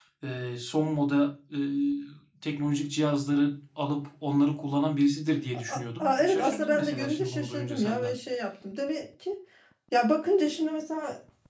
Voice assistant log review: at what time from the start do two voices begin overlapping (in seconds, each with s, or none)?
5.7 s